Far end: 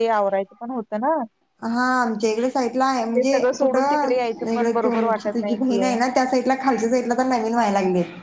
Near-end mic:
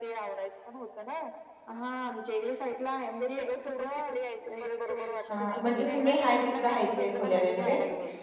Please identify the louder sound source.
user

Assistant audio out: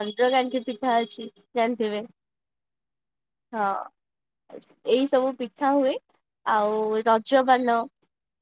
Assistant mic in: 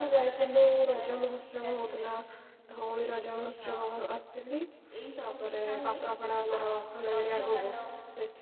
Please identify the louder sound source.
user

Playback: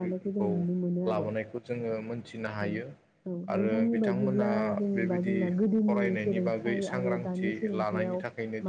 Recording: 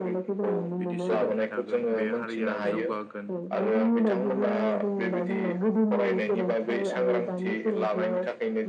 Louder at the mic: echo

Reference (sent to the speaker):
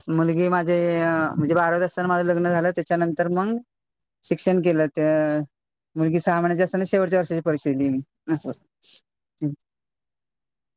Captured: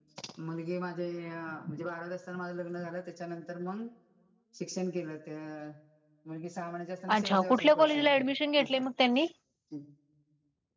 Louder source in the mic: user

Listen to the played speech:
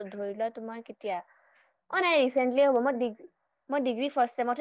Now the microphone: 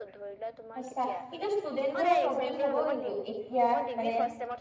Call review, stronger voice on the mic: user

